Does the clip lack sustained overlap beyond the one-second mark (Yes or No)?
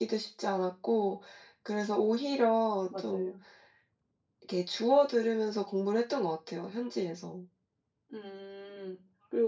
Yes